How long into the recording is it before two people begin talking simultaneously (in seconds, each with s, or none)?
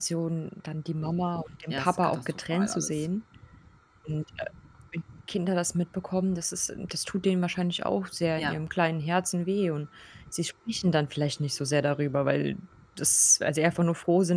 1.7 s